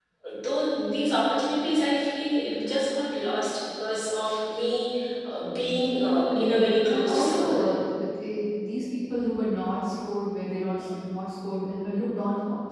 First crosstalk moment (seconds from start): 6.3 s

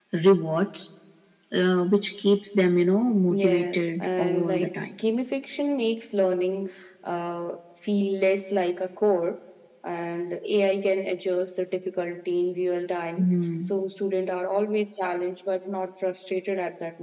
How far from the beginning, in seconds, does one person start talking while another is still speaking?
3.3 s

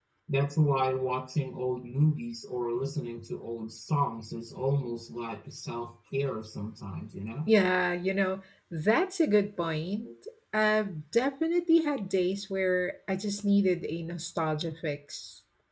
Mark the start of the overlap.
none

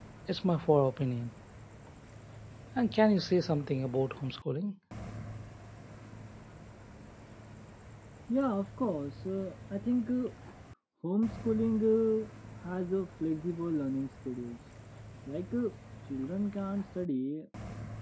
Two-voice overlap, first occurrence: none

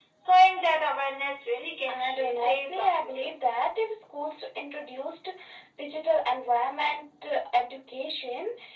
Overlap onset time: 1.9 s

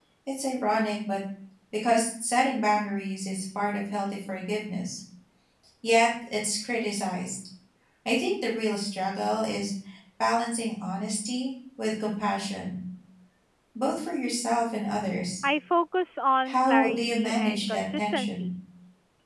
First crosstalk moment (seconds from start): 16.4 s

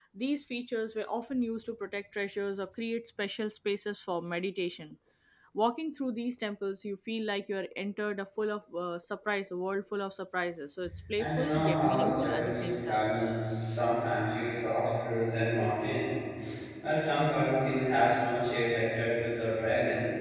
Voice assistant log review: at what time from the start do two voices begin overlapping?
11.2 s

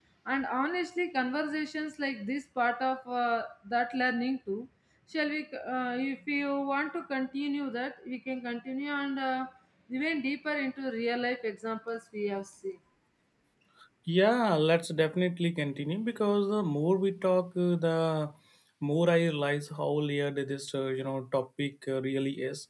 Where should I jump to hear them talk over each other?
none

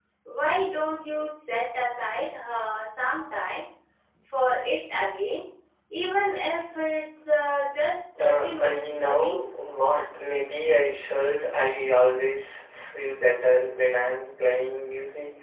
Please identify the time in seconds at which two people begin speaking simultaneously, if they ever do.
8.2 s

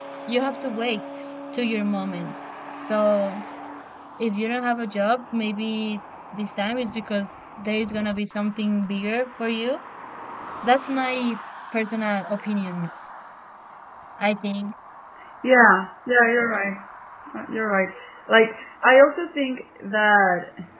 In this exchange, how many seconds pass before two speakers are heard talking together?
none

